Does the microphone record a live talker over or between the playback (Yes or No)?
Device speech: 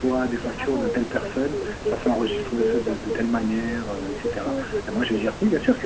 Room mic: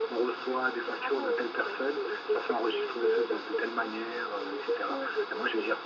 No